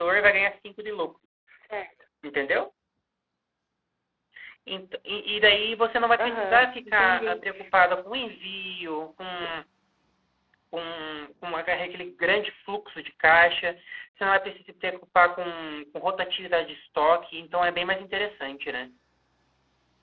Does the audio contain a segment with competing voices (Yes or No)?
Yes